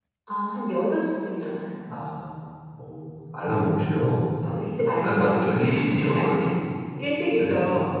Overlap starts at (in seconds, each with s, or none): 5.0 s